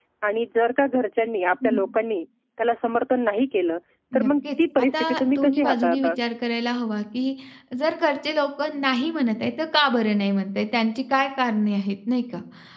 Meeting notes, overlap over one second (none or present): present